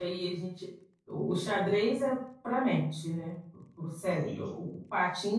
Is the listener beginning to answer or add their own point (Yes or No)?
No